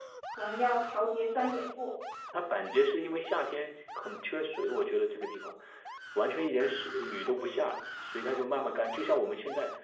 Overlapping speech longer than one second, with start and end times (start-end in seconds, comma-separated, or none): none